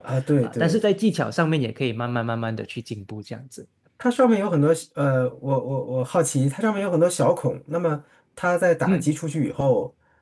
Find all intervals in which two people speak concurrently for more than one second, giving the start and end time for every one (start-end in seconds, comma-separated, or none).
none